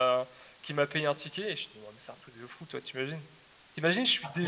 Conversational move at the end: listening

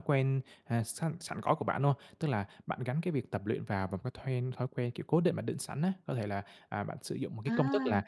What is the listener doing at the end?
listening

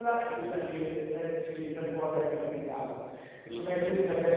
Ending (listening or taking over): listening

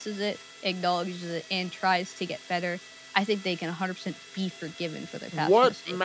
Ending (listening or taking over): taking over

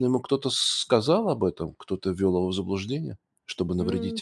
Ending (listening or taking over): taking over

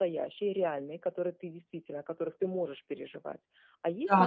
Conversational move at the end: listening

